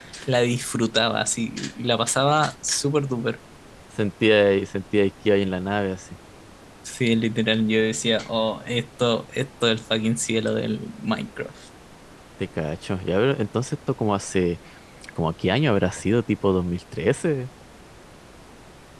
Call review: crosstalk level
none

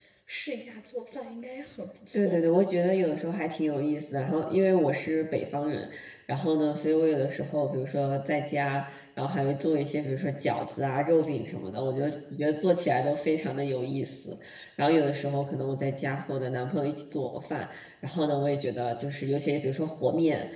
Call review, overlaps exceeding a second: none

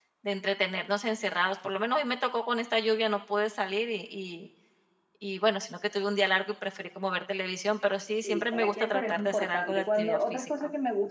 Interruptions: present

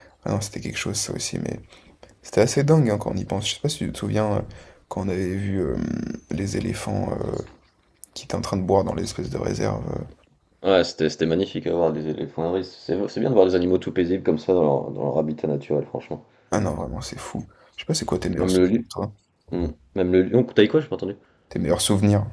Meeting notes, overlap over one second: none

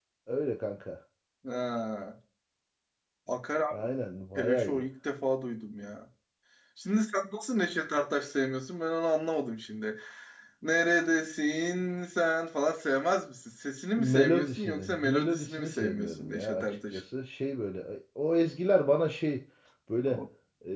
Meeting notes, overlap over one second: present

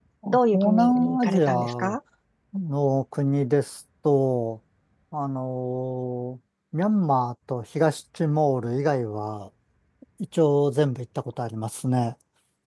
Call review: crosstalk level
present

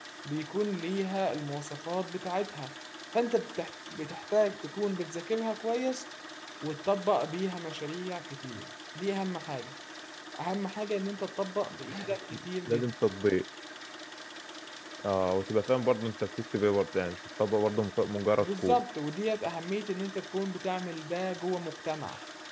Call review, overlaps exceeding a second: none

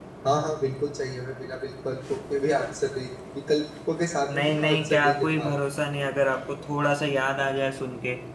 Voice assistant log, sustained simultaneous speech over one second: present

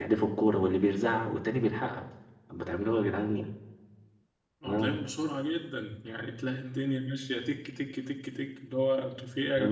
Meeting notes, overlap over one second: none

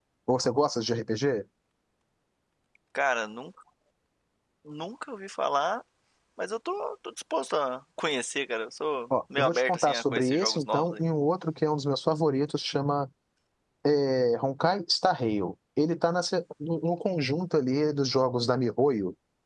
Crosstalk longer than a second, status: present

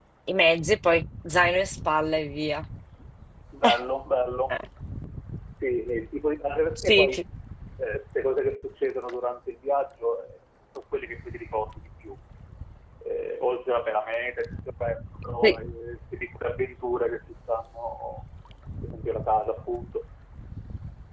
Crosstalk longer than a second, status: none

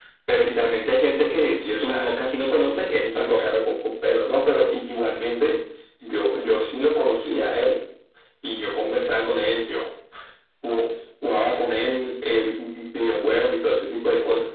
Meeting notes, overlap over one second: present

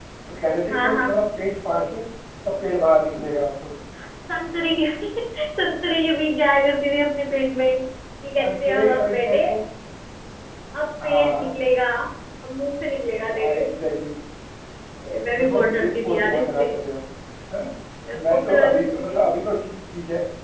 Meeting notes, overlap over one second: present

